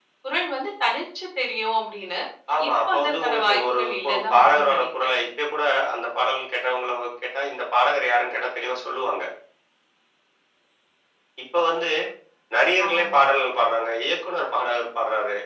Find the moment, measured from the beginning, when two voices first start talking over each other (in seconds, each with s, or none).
2.7 s